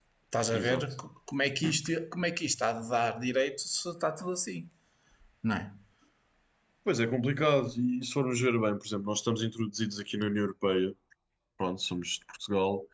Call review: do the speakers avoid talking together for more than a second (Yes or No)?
Yes